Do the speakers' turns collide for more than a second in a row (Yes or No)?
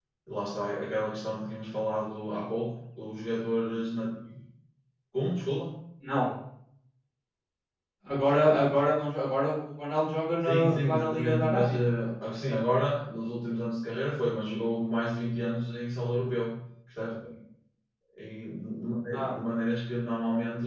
Yes